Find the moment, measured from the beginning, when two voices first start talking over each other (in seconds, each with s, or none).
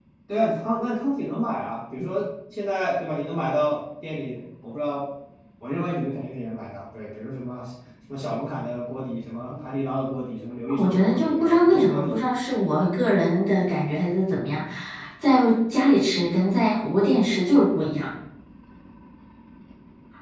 10.7 s